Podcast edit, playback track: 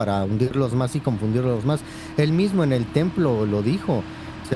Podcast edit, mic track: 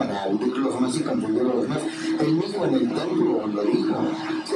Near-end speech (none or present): none